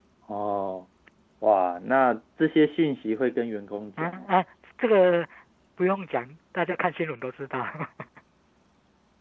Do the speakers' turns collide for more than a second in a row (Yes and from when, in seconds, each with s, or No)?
No